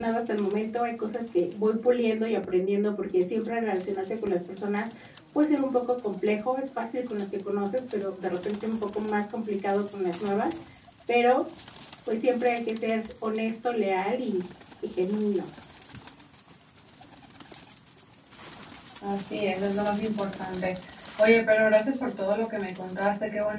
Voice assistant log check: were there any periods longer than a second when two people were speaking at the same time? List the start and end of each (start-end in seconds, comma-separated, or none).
none